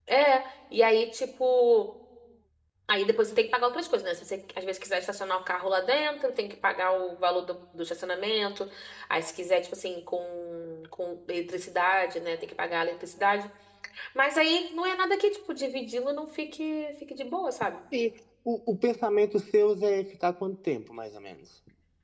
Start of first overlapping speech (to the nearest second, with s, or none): none